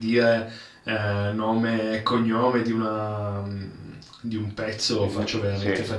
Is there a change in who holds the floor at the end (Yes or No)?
No